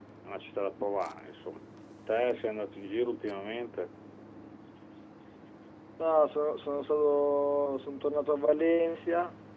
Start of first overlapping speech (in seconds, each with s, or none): none